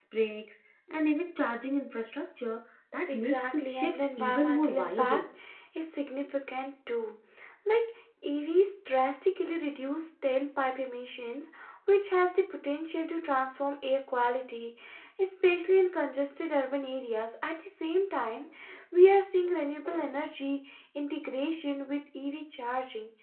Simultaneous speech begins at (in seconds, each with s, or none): 3.1 s